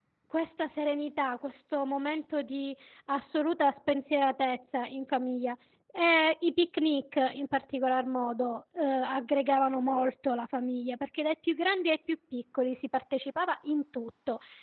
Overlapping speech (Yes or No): No